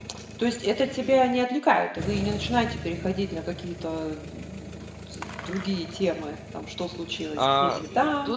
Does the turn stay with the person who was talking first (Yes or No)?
No